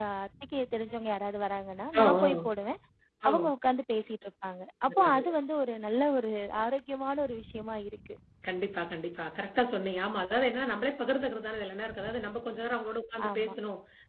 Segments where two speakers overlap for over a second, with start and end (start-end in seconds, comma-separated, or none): none